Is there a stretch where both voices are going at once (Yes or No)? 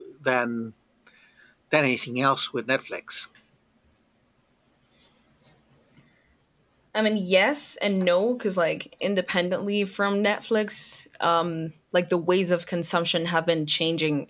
No